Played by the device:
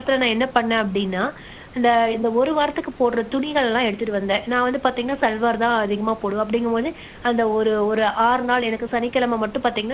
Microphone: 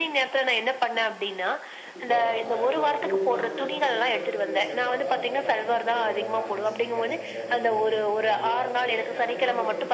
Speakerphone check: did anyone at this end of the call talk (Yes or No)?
Yes